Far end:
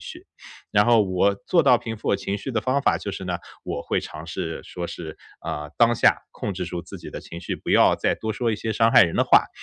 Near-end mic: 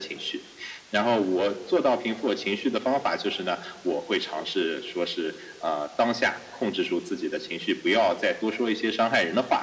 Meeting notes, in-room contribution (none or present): none